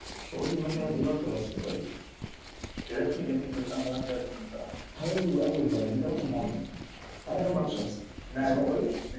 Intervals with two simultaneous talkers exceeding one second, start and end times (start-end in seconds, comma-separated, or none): none